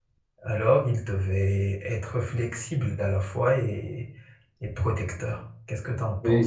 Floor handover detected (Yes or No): Yes